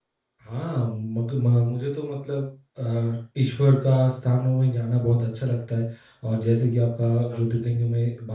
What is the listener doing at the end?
listening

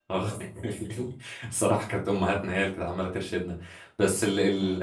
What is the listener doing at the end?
listening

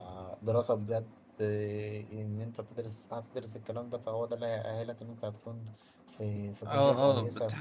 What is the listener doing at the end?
taking over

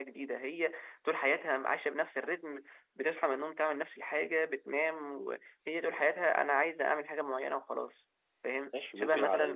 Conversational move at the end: taking over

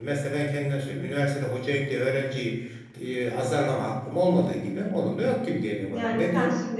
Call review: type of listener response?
taking over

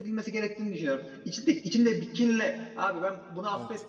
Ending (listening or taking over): listening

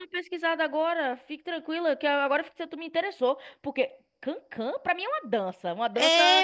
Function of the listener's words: taking over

